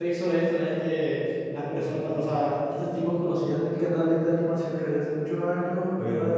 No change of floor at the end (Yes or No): Yes